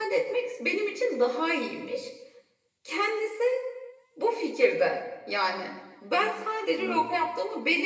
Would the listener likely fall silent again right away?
Yes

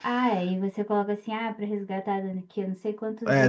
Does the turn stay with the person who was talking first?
No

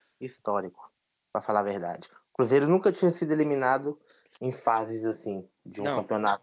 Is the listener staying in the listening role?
No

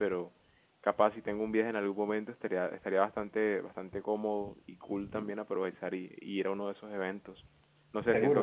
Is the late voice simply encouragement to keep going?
Yes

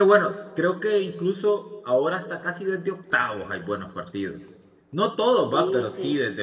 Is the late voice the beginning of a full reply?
No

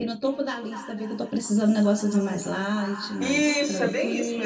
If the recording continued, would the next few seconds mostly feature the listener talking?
Yes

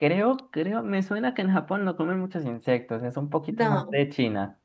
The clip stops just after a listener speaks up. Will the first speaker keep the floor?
Yes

